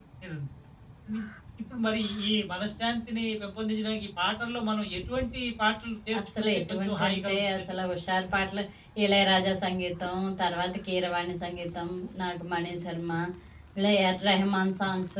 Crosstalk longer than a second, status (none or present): present